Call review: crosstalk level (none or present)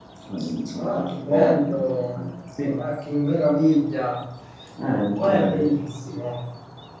present